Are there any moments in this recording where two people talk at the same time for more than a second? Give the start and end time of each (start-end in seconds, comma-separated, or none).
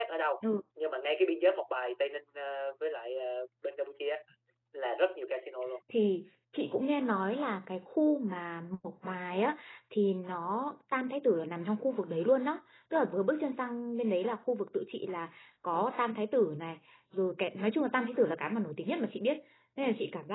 none